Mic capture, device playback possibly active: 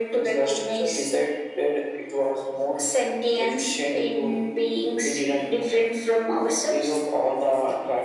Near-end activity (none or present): none